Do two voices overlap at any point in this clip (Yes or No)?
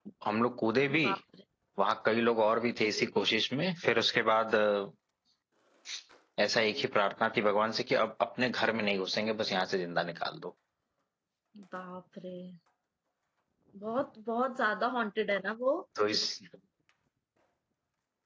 No